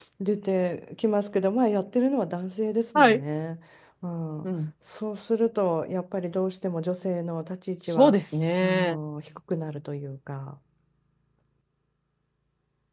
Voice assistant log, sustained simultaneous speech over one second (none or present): none